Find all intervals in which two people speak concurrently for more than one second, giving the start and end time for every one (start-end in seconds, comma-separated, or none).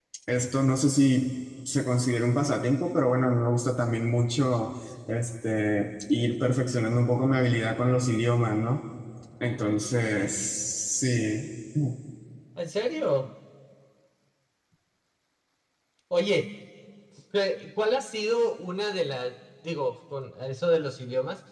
none